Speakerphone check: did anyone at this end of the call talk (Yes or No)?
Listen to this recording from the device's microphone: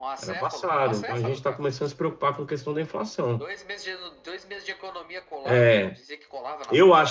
Yes